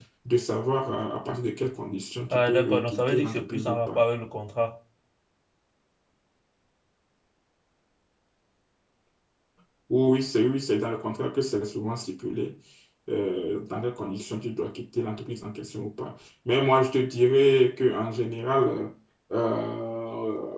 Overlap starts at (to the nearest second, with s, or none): 2 s